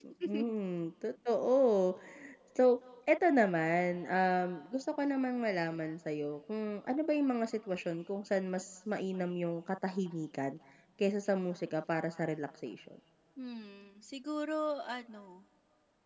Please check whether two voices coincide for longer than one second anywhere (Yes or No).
No